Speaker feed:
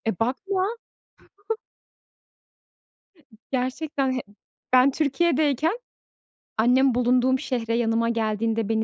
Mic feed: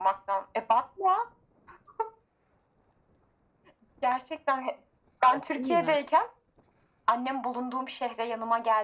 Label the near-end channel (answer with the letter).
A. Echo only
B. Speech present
B